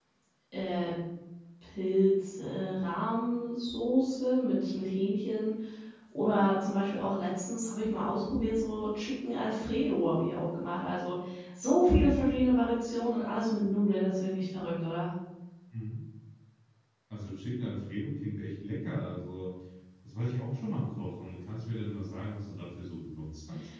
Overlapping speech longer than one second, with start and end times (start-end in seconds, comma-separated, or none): none